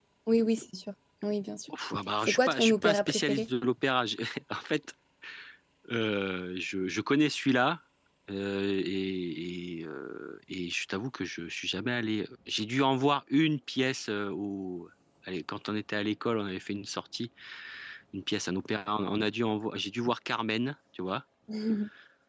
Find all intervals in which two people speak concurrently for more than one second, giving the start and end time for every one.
2.2-3.5

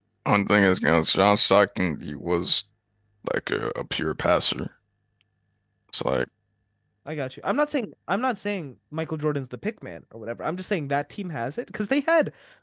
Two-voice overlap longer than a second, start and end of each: none

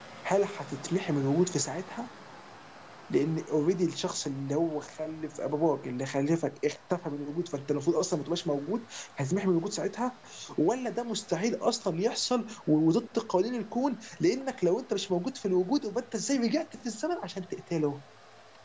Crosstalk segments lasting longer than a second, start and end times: none

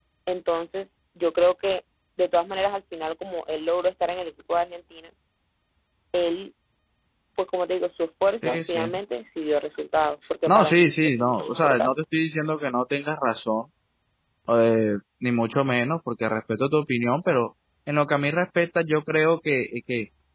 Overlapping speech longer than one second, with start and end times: 10.5-12.0

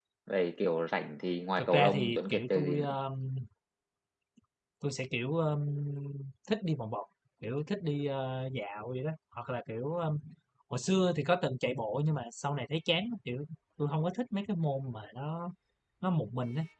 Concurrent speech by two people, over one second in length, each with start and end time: 1.6-3.0

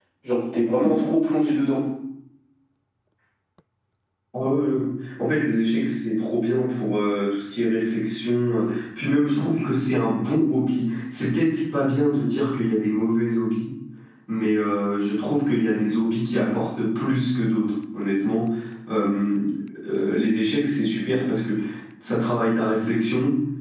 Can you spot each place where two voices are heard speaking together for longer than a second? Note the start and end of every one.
none

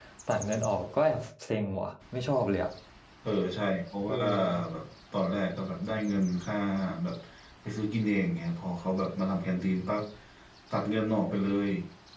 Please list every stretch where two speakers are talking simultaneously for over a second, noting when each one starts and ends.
none

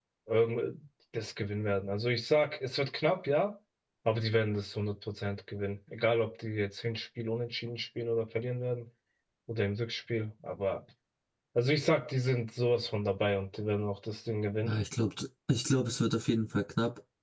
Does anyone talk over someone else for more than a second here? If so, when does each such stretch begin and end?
none

